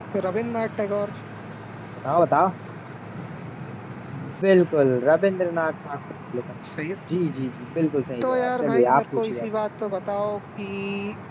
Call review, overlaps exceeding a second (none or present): present